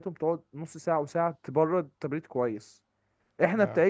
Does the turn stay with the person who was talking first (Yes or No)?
Yes